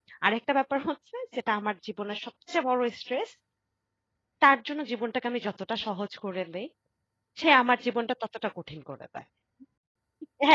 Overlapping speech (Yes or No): No